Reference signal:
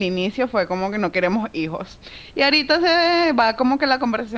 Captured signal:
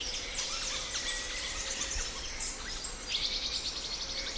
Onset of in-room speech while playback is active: none

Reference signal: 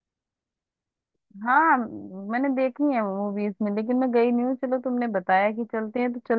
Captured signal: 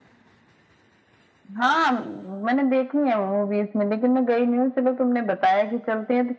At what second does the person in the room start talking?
none

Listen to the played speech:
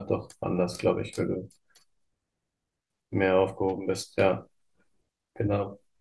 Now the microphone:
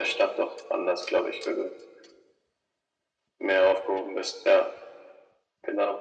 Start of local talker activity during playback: none

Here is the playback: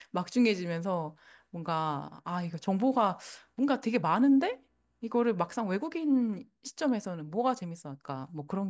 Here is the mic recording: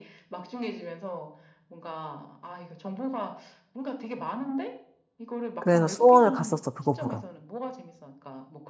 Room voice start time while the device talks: 5.6 s

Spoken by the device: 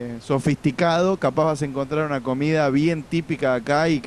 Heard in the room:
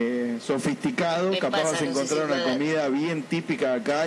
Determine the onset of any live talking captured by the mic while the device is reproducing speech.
1.3 s

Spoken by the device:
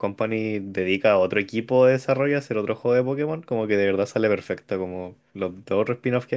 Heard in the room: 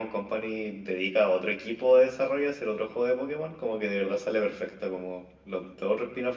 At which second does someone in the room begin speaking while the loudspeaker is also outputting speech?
none

